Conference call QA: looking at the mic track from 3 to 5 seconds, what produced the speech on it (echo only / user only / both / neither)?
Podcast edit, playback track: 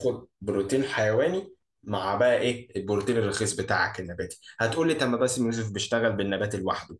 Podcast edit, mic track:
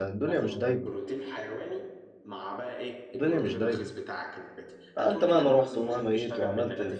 both